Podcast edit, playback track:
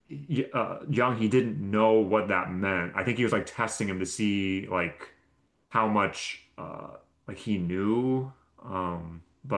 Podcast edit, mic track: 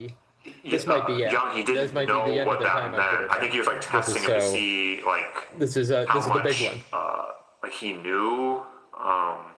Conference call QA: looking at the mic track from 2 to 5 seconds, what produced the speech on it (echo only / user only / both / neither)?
both